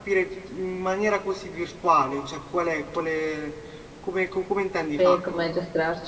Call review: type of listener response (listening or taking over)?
taking over